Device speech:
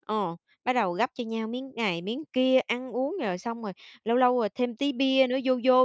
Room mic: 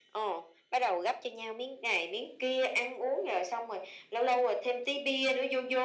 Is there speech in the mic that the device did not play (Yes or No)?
No